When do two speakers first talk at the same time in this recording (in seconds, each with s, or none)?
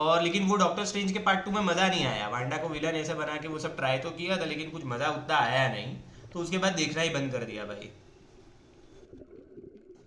none